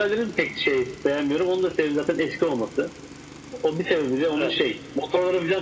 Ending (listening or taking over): listening